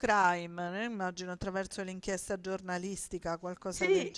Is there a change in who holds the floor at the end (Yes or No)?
Yes